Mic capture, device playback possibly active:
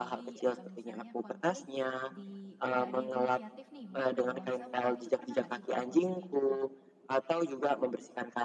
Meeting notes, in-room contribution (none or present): present